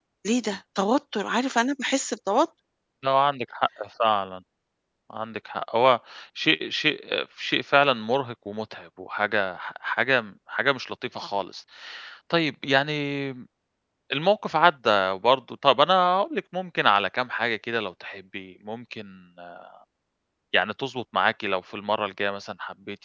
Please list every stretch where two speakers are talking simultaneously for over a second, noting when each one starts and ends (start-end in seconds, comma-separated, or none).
none